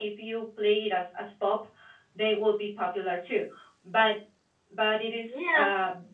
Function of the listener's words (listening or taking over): listening